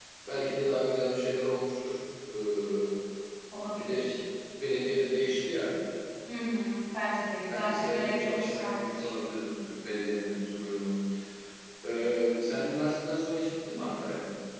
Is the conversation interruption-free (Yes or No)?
No